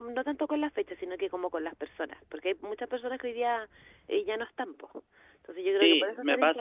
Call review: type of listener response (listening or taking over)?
taking over